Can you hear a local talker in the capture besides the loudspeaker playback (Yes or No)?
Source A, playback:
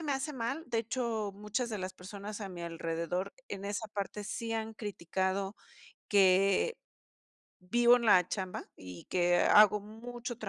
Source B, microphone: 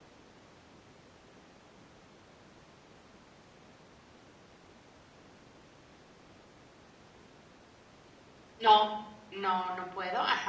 Yes